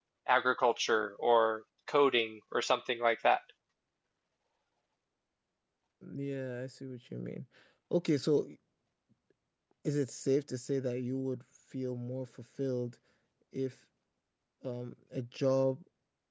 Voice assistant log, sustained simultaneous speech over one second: none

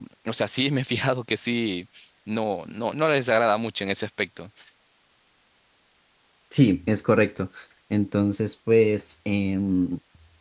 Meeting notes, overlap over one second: none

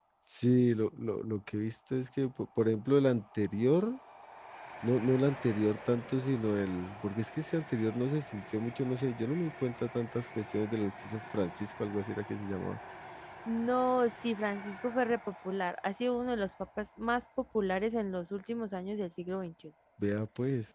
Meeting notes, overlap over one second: none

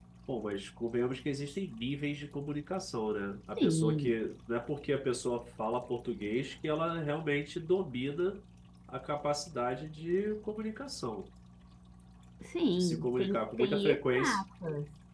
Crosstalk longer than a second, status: present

